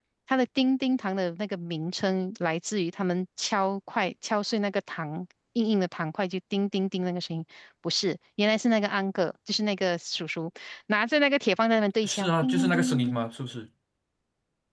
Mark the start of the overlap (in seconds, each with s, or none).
12.0 s